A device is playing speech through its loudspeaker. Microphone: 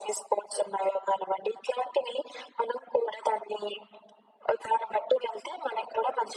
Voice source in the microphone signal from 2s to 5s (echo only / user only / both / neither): echo only